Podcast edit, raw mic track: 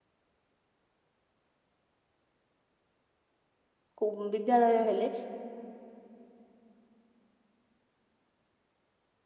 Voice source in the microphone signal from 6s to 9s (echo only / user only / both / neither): neither